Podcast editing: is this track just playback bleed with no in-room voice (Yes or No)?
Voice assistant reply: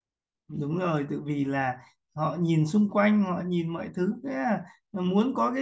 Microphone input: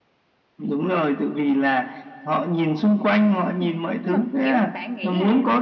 No